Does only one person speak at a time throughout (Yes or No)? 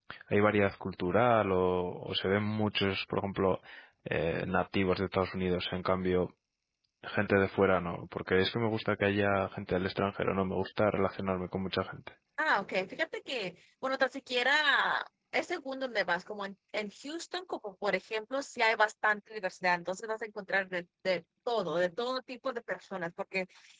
Yes